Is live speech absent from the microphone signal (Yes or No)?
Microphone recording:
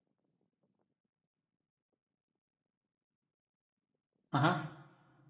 No